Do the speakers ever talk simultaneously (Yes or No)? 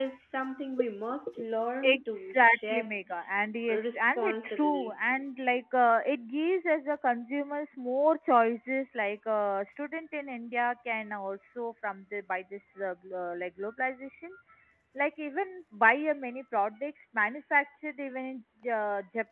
Yes